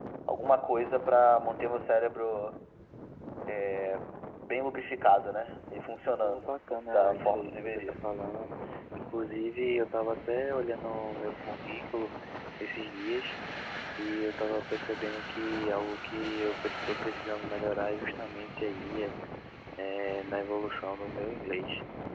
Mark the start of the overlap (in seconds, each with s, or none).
6.2 s